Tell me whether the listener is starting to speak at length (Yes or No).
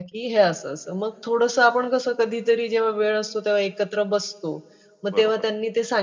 No